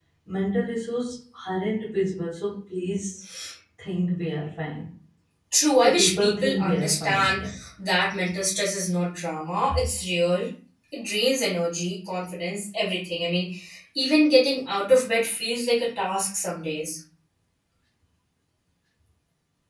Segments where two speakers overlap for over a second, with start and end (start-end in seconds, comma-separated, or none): 5.8-7.6